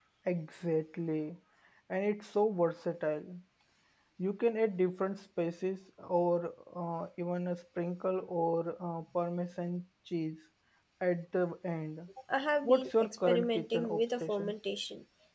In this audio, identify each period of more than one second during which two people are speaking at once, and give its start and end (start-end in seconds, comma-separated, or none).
12.6-14.5